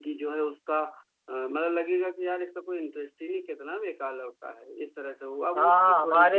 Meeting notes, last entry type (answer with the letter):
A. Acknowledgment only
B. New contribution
B